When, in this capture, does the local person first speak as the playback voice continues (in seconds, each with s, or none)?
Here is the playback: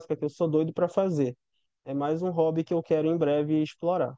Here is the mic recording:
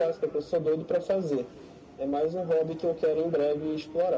none